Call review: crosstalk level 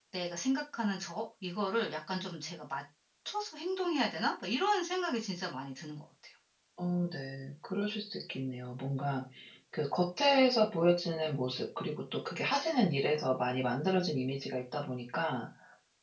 none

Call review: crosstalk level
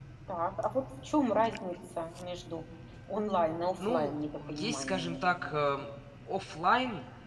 present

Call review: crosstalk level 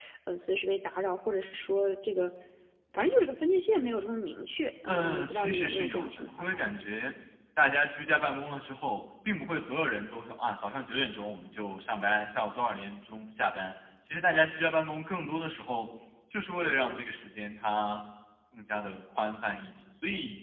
present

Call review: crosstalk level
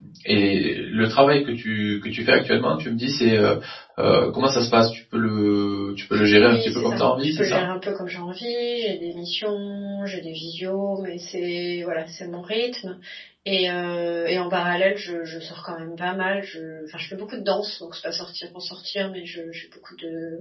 present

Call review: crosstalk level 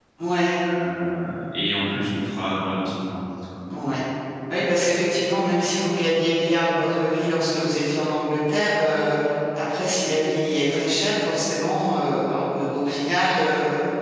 none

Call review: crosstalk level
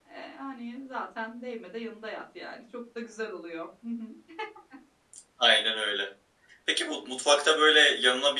none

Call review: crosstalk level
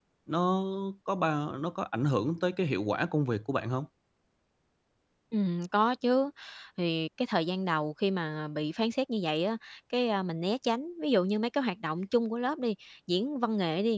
none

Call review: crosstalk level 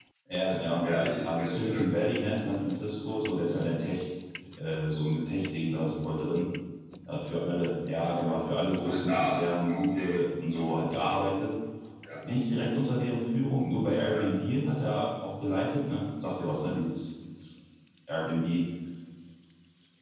present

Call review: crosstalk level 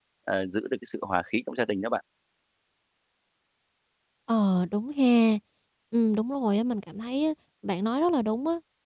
none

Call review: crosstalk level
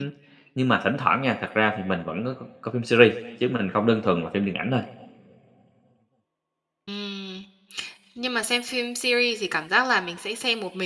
none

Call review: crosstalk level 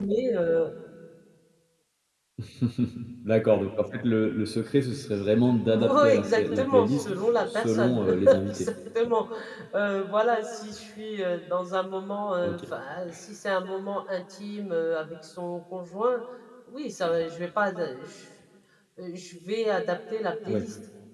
present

